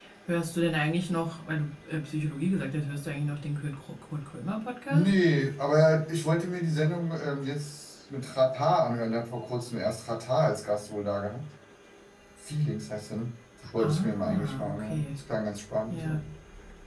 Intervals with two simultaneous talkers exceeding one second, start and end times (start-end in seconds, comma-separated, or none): 13.8-15.1